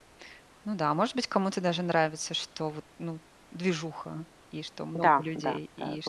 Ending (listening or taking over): taking over